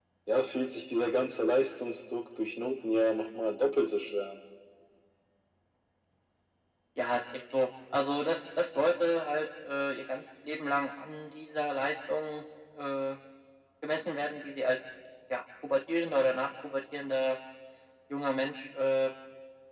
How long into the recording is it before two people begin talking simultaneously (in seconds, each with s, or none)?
none